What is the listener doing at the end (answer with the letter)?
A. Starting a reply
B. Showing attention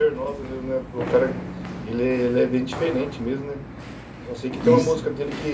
B